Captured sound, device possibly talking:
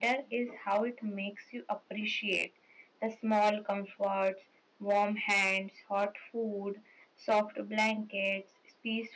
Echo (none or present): none